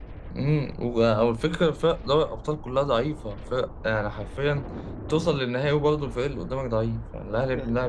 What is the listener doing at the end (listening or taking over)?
taking over